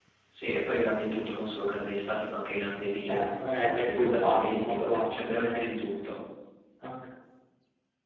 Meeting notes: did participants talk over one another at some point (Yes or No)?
Yes